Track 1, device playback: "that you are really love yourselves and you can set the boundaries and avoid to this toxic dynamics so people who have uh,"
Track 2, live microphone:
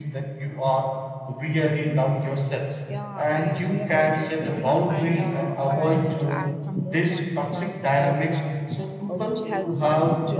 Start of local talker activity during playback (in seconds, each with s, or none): 2.9 s